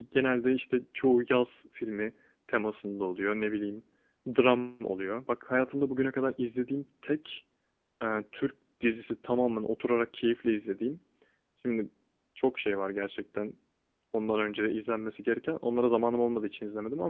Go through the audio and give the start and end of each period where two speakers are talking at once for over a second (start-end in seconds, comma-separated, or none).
none